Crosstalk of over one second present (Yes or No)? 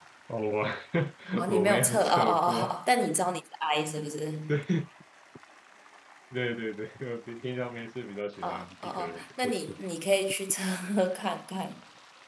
Yes